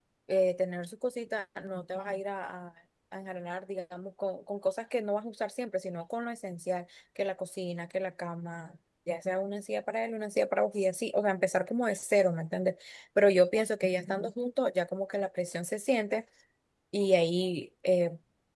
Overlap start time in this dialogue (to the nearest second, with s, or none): none